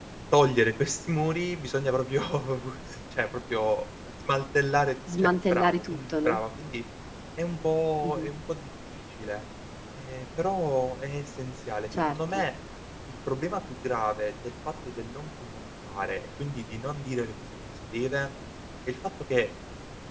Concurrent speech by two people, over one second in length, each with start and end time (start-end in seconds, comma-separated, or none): 5.2-6.4